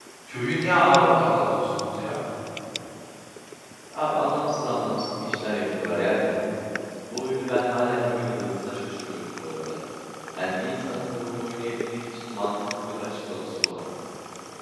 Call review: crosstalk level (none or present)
none